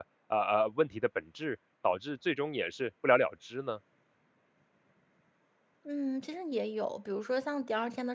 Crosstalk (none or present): none